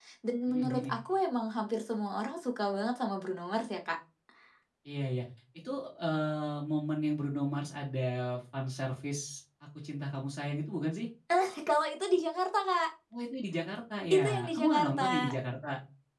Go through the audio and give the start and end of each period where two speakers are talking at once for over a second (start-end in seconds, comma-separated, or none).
14.1-15.3